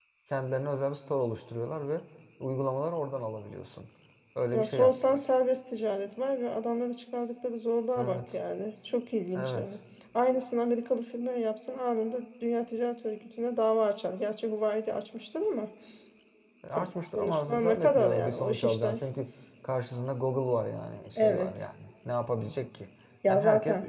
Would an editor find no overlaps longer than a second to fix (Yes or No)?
No